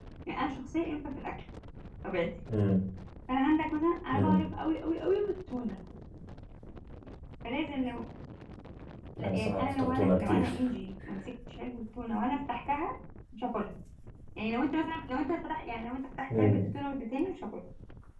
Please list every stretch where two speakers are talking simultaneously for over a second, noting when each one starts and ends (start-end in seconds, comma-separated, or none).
9.2-10.5